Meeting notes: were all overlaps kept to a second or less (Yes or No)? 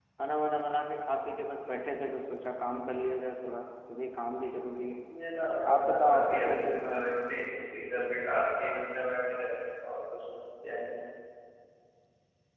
No